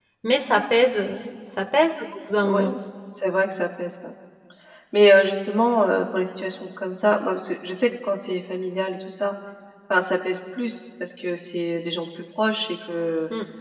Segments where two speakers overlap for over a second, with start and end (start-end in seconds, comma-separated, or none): none